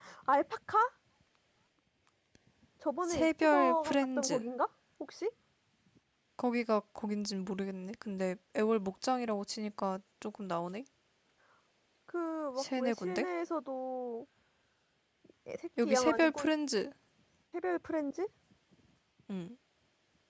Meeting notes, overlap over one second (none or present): present